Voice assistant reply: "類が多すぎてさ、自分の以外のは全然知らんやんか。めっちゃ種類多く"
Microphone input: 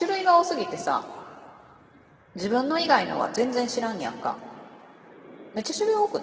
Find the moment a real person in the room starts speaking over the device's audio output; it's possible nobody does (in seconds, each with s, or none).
none